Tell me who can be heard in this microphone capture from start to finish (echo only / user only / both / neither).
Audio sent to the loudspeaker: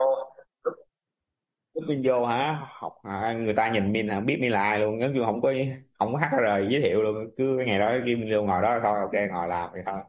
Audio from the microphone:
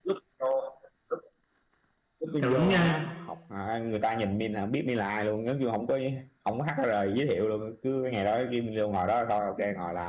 both